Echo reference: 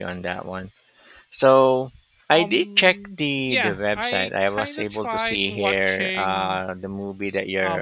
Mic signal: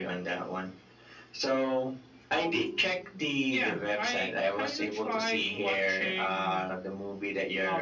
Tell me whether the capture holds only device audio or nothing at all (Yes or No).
Yes